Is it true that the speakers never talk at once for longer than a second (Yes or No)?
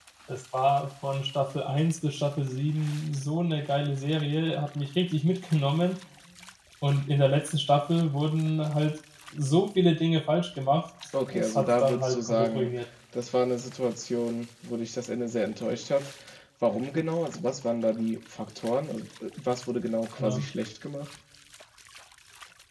No